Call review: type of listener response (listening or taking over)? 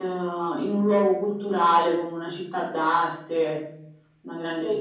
taking over